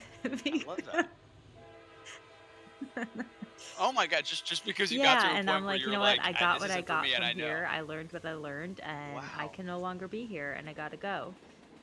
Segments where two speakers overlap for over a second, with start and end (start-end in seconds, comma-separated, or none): 4.9-7.6